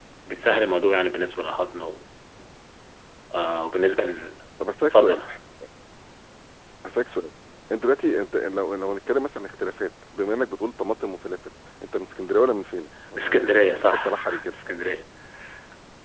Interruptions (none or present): present